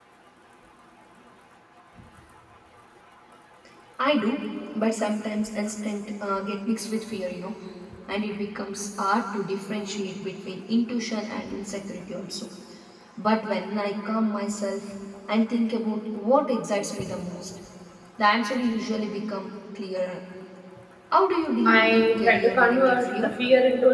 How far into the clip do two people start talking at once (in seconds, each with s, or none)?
21.6 s